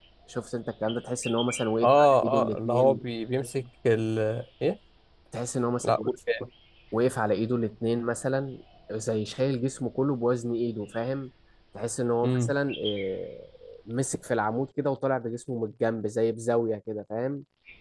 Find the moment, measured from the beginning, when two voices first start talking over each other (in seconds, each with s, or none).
1.8 s